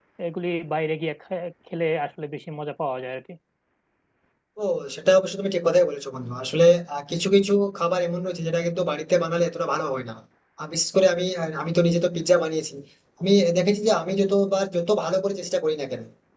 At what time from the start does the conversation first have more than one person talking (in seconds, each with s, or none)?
none